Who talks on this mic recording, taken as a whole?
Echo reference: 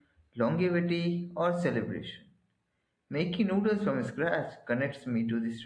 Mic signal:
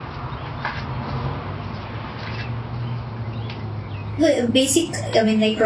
user only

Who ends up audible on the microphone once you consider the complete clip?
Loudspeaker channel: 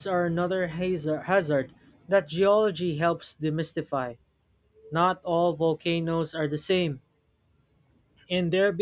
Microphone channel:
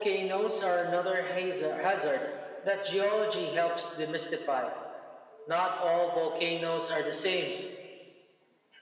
echo only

